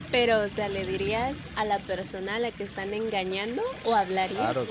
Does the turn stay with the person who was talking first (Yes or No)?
No